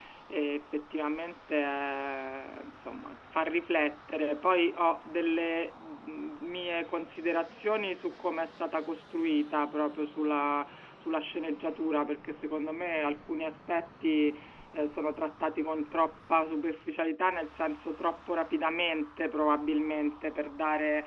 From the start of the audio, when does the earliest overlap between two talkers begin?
none

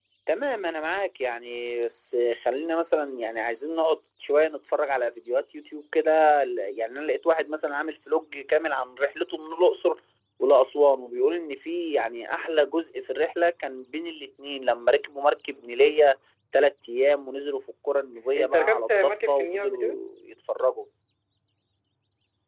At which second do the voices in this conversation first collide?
18.4 s

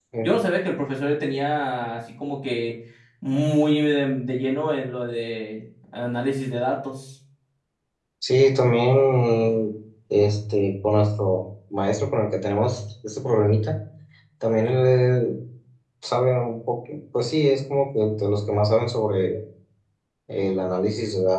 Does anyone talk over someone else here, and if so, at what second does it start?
none

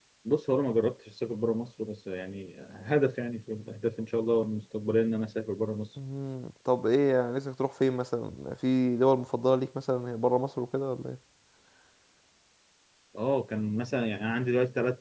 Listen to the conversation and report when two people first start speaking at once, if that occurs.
none

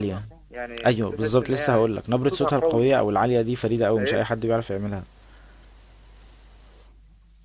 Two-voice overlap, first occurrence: 0.8 s

